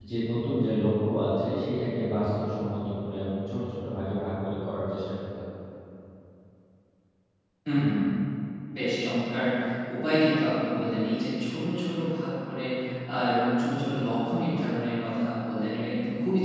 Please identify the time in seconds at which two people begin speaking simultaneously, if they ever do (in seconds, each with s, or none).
none